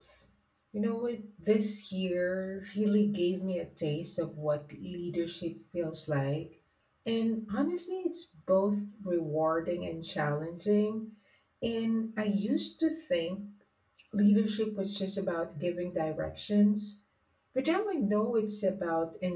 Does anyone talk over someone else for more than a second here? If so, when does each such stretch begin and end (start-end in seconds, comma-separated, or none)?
none